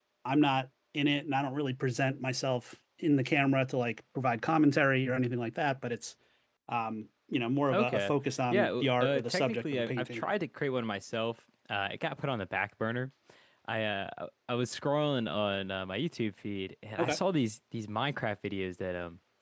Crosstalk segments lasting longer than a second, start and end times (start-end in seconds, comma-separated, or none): 8.5-10.2